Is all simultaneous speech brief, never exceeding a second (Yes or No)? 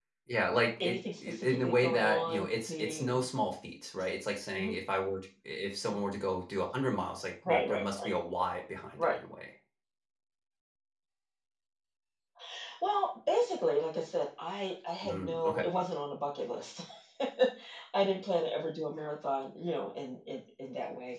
No